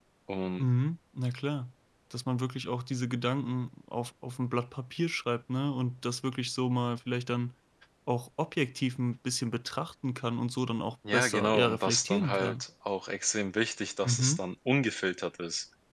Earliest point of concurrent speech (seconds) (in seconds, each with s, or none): 11.1 s